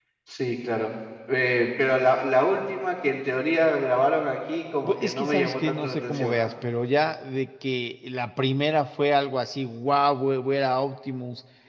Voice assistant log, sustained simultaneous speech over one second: present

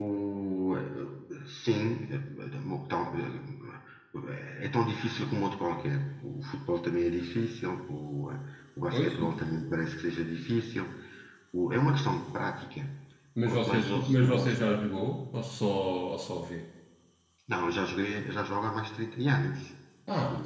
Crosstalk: present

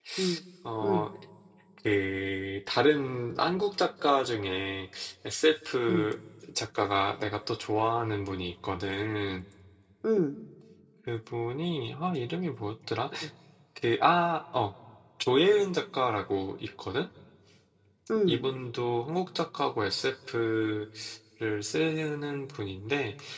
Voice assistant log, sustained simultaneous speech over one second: none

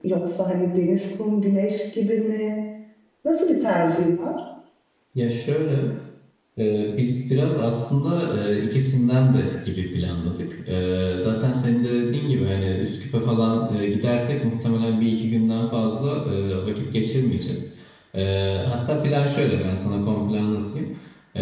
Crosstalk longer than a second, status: none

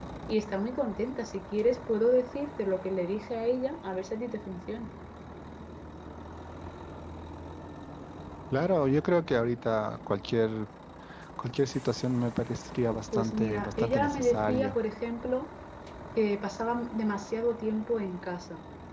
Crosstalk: present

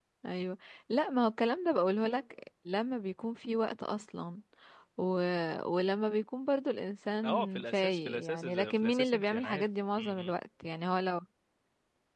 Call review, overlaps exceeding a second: present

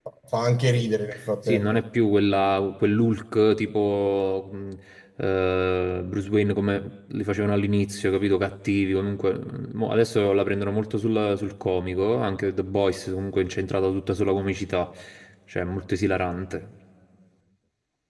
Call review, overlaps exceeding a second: none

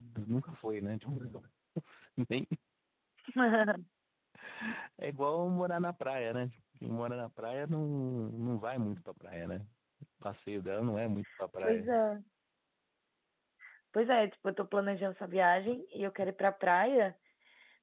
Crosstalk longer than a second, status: none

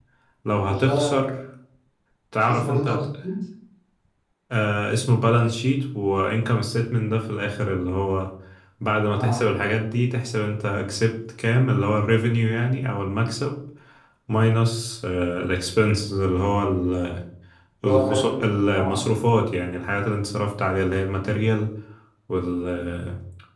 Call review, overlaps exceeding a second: present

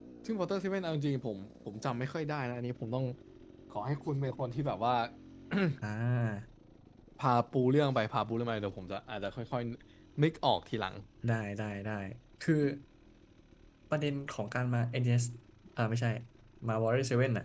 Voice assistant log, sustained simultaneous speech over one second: none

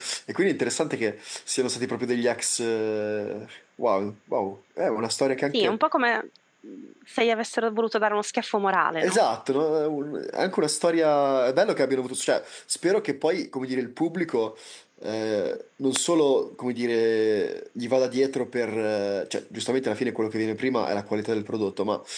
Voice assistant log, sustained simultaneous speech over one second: none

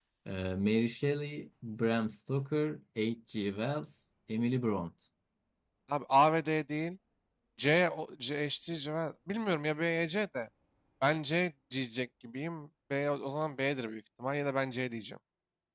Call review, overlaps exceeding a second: none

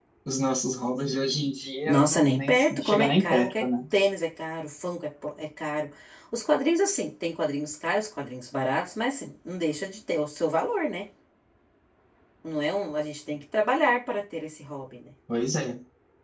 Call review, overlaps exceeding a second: present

